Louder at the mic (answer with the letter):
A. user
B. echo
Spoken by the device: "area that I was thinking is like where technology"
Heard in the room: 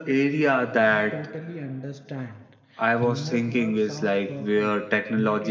B